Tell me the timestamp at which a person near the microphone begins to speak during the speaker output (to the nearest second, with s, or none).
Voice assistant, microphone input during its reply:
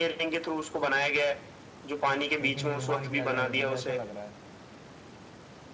2 s